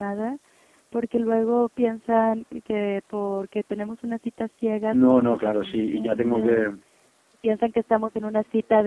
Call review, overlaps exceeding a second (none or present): present